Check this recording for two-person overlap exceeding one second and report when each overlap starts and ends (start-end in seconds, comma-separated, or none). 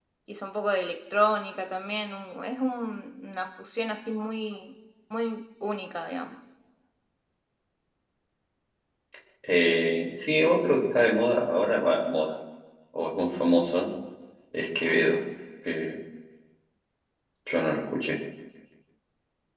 none